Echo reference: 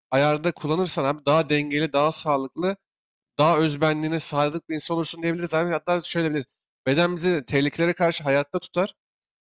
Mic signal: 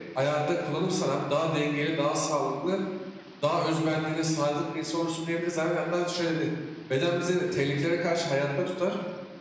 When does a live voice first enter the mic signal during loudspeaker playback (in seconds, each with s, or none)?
none